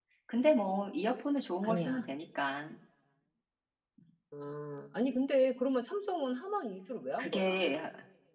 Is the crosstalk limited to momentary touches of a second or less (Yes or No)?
Yes